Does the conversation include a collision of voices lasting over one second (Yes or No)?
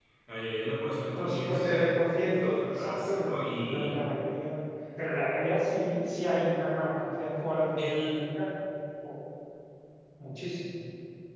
Yes